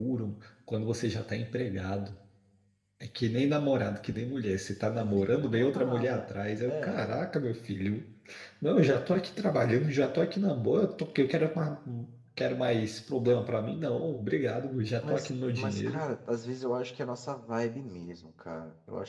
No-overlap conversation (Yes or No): No